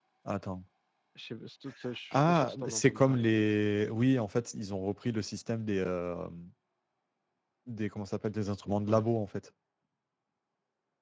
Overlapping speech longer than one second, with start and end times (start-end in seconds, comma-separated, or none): 2.1-3.4